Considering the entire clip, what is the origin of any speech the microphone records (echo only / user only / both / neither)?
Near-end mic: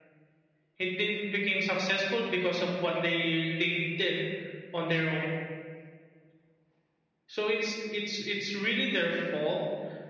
echo only